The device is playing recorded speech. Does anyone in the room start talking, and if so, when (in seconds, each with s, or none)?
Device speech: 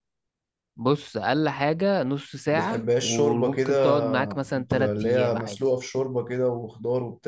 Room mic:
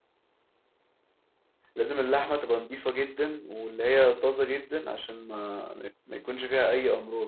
1.8 s